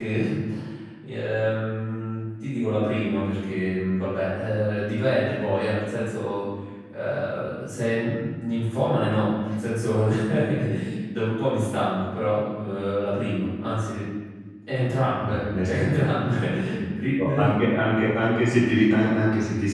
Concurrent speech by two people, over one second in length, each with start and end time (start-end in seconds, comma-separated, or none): none